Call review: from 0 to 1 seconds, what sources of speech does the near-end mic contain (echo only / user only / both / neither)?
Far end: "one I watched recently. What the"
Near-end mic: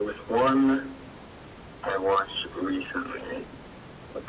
echo only